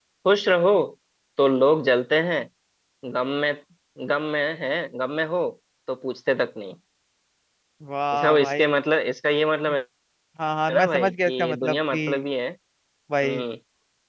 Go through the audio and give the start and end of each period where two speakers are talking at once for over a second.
10.7-12.0

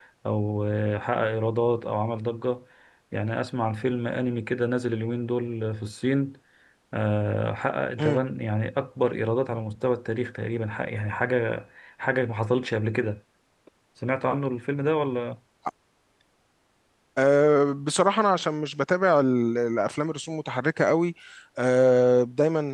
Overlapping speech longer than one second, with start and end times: none

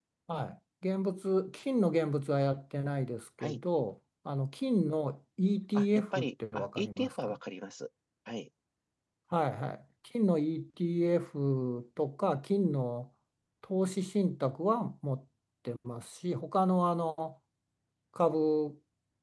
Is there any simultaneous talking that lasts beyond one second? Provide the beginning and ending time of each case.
5.8-7.4

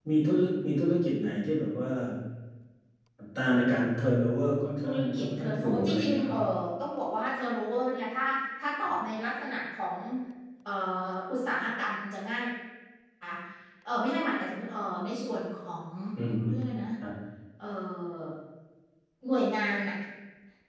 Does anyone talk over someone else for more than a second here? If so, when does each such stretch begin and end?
4.8-6.4

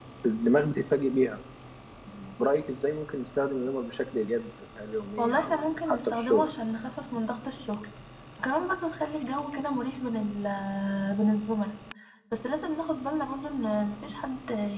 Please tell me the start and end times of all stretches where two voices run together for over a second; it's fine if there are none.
5.2-6.4

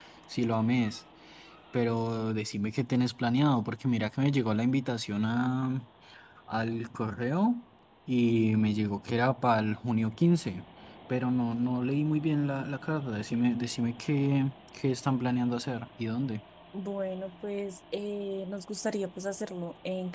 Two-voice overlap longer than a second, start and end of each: none

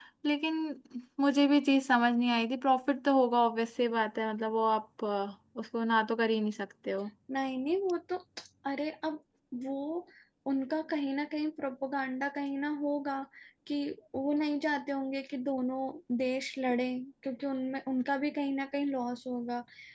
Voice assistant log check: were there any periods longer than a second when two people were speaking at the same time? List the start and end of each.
none

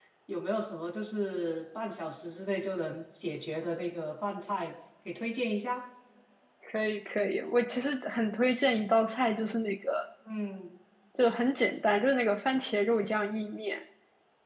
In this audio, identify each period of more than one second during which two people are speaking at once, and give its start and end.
none

